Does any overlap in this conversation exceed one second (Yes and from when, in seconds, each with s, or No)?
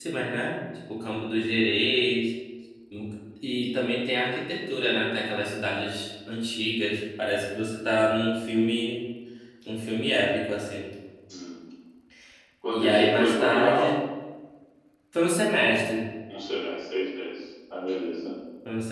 Yes, from 12.7 s